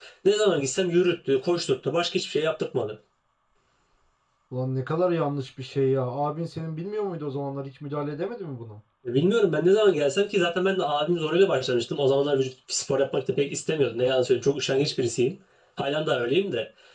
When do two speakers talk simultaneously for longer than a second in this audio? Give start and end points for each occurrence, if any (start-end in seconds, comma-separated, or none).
none